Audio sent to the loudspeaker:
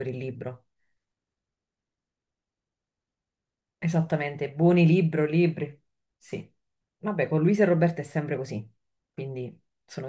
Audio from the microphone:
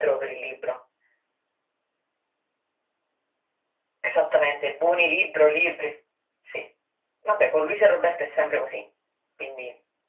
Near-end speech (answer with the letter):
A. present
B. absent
B